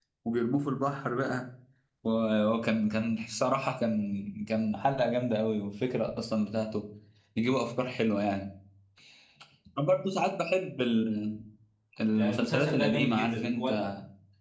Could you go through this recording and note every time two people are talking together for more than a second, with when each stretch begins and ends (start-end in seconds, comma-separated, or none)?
12.1-13.7